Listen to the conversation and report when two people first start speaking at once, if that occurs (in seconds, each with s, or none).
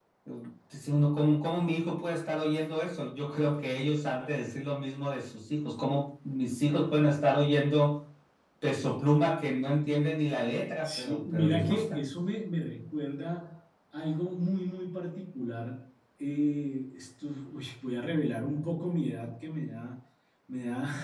10.8 s